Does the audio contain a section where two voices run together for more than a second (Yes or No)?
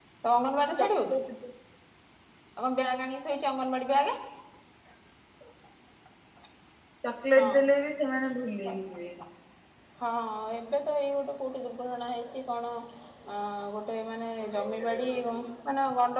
No